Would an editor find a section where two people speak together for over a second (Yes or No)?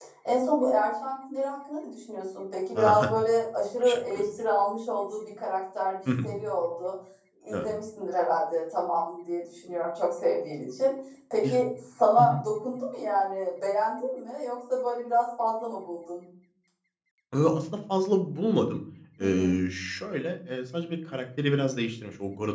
No